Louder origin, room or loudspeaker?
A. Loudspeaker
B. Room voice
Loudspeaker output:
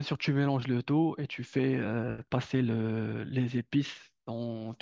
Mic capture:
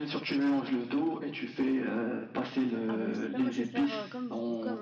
A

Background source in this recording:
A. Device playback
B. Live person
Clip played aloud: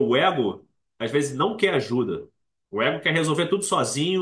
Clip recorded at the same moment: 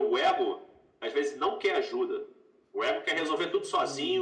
B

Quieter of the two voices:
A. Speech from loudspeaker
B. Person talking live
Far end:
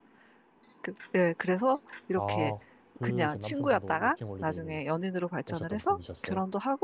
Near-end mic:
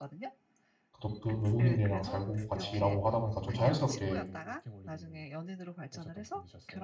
A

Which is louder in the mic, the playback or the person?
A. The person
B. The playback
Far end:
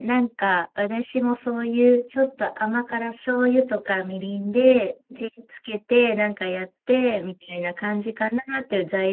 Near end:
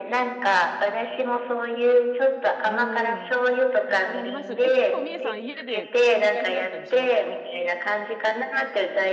B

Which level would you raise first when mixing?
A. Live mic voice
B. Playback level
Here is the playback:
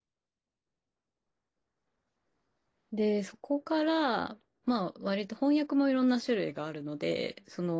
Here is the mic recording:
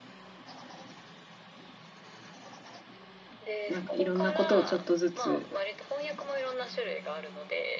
B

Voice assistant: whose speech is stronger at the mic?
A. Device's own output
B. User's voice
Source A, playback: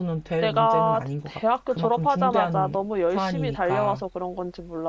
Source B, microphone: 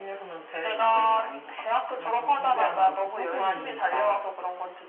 A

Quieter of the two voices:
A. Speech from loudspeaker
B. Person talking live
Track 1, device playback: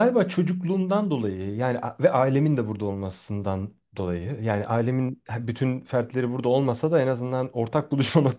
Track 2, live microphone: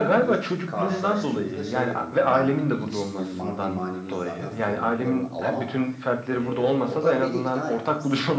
B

